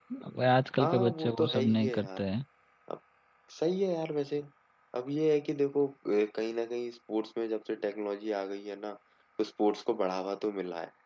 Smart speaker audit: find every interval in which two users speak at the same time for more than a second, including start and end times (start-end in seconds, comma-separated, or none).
0.8-2.2